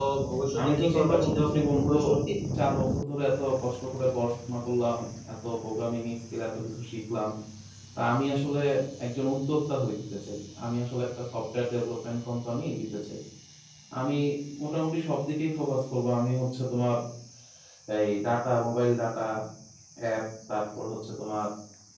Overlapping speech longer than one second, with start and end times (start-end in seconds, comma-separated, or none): 0.6-1.9